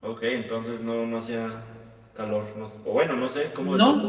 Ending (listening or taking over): taking over